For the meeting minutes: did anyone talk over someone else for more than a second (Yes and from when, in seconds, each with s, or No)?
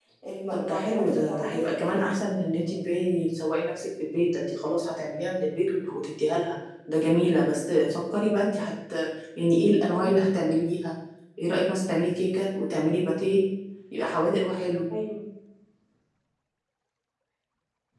Yes, from 0.5 s